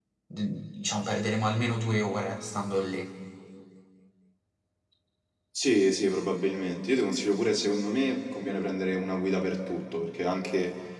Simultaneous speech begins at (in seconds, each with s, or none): none